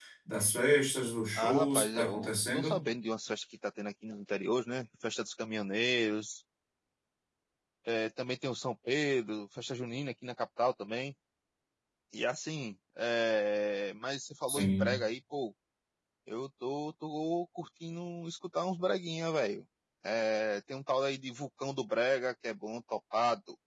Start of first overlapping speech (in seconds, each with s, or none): 1.4 s